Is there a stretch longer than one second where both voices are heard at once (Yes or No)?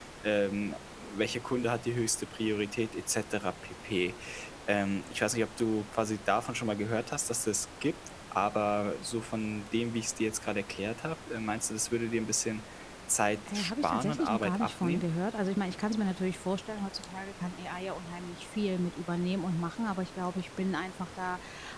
Yes